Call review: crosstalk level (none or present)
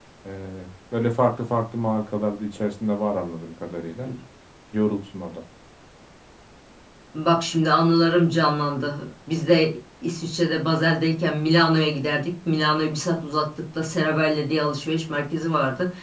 none